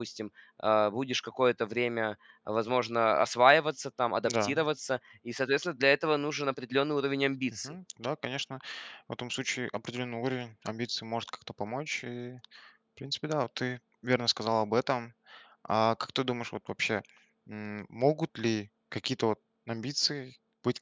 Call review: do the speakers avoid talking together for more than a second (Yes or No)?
Yes